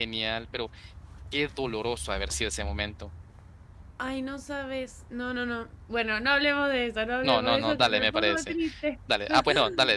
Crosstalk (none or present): present